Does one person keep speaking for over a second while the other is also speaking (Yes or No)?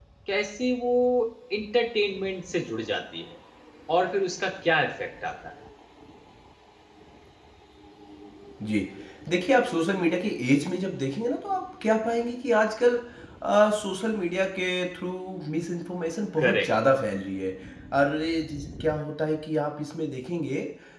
No